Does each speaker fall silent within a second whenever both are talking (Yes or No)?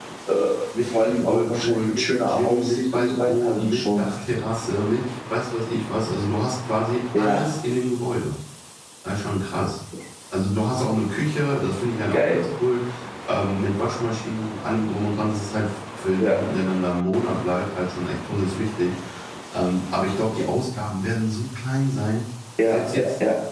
No